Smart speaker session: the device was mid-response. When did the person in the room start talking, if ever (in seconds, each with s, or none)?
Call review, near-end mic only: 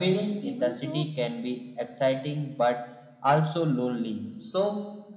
0.4 s